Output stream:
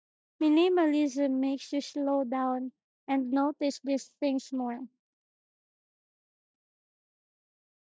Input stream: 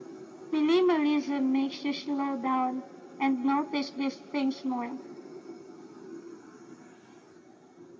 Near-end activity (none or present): none